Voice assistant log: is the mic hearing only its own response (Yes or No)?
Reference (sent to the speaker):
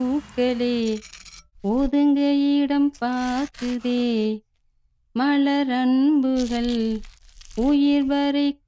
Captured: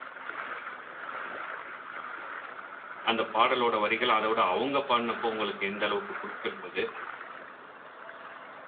No